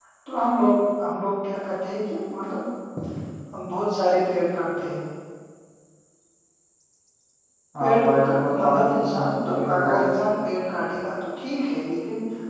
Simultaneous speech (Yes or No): Yes